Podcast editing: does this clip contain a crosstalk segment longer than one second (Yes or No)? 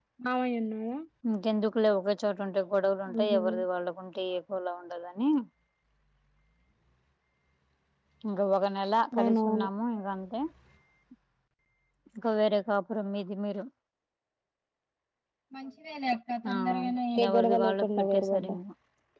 Yes